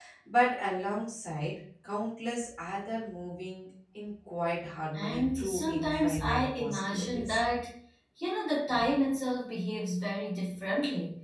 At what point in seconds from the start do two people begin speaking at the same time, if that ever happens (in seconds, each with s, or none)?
4.9 s